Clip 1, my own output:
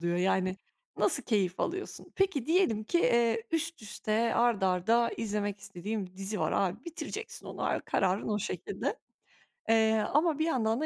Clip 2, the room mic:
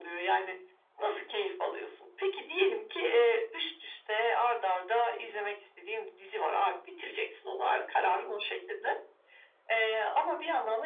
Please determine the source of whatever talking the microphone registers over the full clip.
echo only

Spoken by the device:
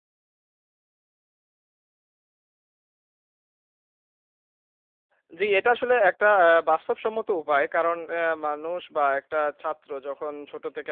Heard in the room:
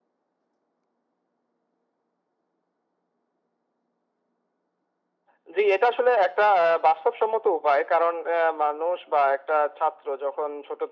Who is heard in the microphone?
echo only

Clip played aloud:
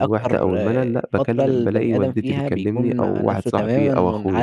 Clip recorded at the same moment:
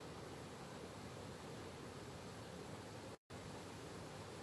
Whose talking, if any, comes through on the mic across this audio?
neither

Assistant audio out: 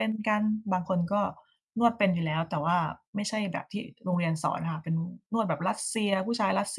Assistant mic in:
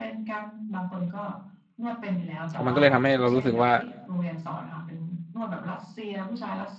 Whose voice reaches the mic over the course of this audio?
both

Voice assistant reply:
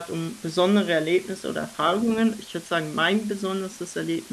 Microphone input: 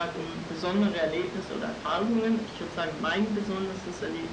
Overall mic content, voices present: echo only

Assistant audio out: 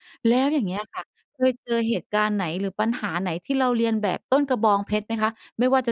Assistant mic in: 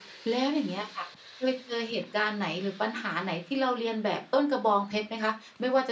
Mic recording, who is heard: echo only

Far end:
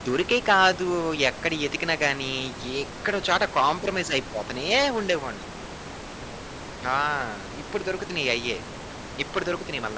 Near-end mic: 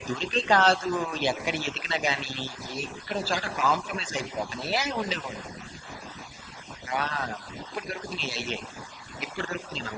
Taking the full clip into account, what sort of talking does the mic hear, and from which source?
echo only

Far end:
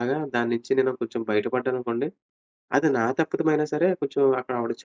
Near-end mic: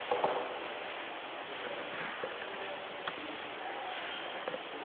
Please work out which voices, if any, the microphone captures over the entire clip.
neither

